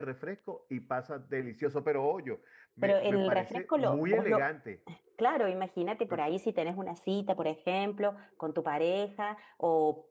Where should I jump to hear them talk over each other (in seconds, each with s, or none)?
2.8 s